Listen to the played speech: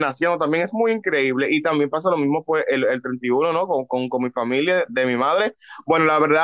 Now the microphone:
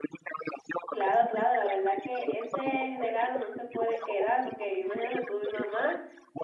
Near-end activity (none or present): present